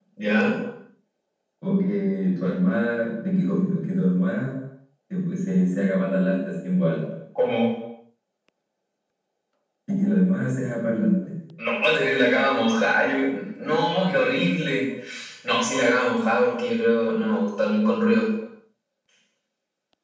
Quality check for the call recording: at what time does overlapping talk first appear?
none

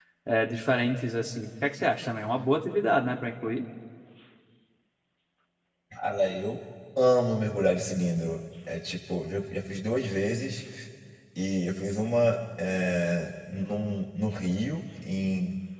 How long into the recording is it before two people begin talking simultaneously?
none

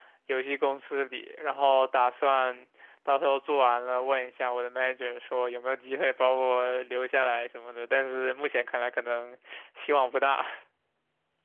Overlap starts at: none

